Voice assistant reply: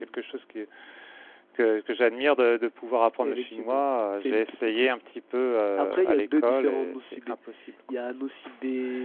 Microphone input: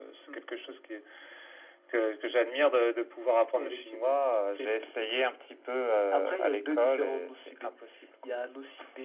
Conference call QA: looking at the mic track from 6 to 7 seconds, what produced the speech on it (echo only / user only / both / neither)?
echo only